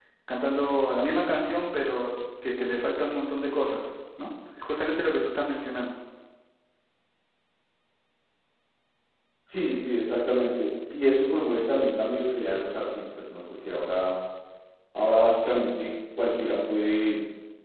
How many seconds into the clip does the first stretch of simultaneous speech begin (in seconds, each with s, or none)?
none